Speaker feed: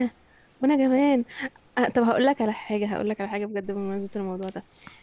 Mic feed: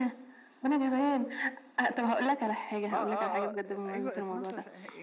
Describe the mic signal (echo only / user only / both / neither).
both